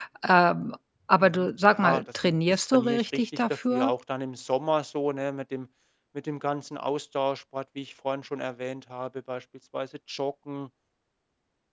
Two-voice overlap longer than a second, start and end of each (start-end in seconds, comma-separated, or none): 1.2-3.9